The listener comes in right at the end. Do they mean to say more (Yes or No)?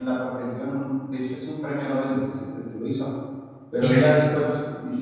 No